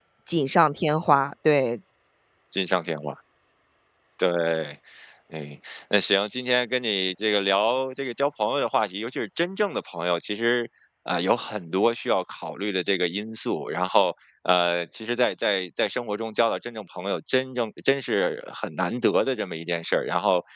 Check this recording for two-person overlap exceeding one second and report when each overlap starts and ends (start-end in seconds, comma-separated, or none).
none